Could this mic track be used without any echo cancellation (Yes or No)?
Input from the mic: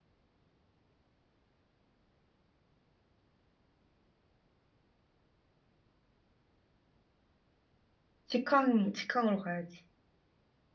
Yes